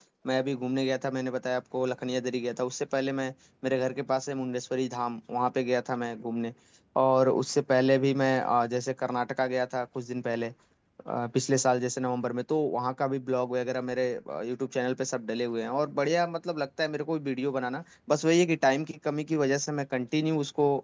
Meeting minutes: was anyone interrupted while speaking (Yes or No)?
No